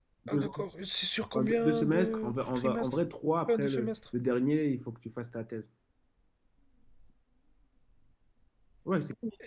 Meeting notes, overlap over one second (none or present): present